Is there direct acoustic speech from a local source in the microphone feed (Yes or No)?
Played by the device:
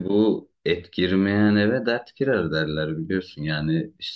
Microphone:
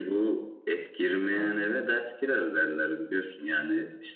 Yes